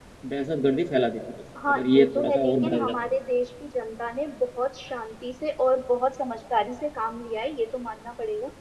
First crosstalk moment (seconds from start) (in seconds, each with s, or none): 1.6 s